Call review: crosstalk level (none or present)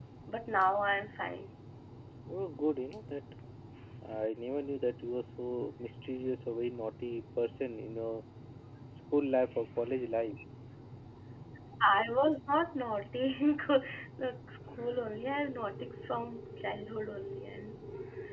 none